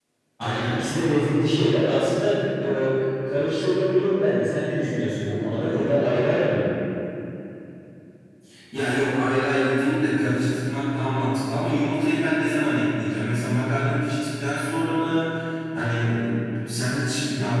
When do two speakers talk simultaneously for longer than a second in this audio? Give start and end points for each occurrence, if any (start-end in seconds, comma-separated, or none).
none